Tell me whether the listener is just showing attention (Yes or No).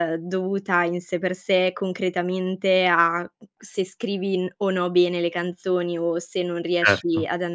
Yes